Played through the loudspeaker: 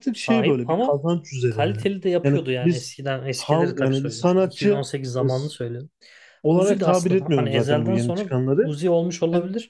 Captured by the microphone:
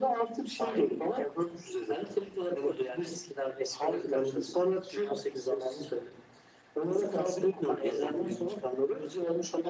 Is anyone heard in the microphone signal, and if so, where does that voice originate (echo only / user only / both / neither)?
echo only